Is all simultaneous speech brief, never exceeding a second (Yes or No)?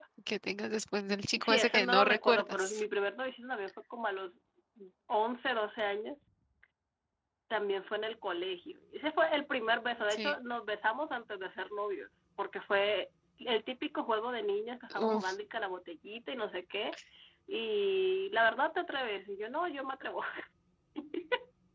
No